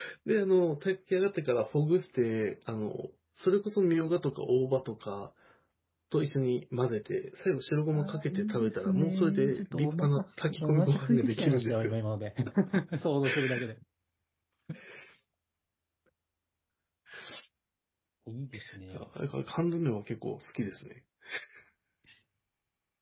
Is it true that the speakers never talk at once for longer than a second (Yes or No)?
No